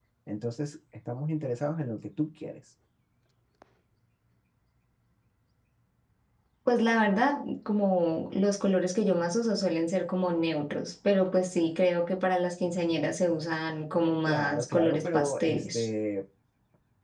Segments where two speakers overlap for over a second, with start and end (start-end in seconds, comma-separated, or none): 14.3-15.8